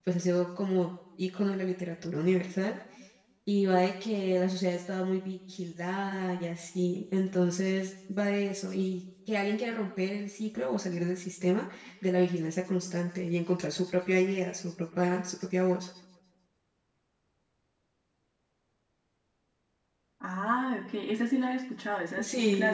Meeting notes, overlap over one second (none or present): none